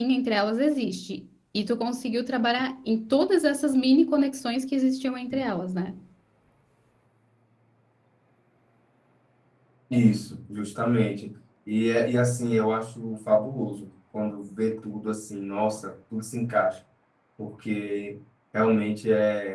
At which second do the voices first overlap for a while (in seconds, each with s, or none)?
none